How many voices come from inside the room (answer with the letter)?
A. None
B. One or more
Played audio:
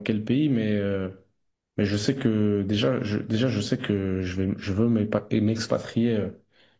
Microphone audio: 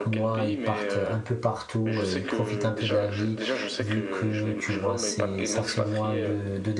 B